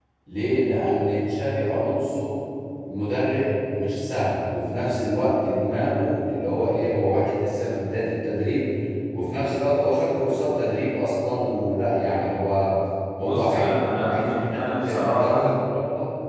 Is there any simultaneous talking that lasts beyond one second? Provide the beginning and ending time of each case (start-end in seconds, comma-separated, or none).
14.1-15.6